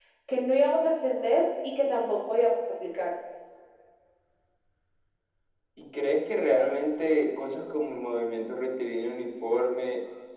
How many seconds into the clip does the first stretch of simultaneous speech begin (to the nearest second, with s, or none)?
none